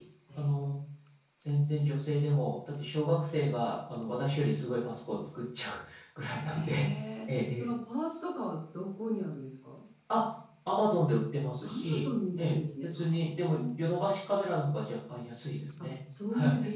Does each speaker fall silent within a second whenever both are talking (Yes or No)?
No